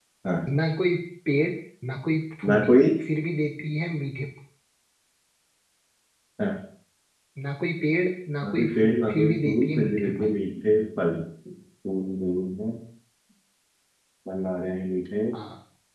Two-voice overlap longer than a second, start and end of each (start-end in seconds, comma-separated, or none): 8.4-10.3